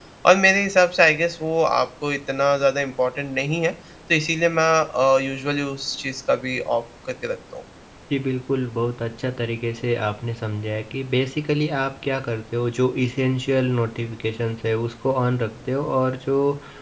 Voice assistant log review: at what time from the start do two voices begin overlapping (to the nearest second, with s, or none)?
none